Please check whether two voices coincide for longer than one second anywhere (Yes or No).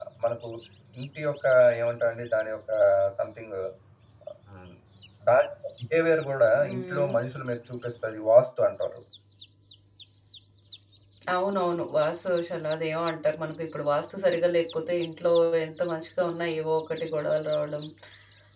No